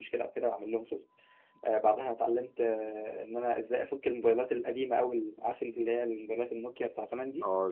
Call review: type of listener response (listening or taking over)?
taking over